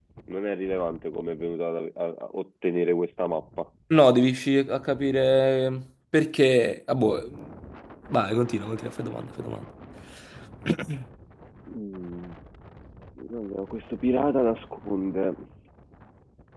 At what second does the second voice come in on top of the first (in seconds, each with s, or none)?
none